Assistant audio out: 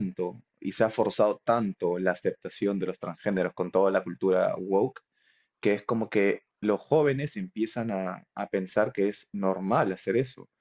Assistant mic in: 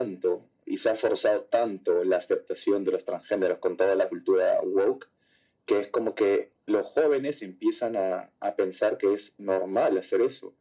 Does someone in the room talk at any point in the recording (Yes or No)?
No